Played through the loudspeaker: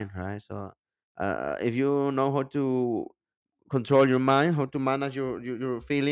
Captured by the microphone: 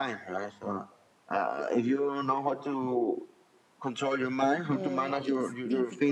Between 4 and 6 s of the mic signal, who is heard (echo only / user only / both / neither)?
both